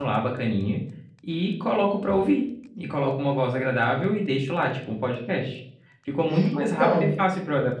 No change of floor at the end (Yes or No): Yes